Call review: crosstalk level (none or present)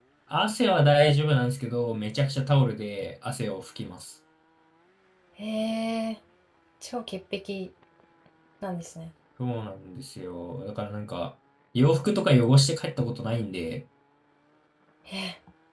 none